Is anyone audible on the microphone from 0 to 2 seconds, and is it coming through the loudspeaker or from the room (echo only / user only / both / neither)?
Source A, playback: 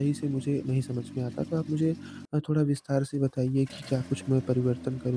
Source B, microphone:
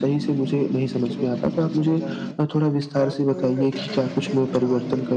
both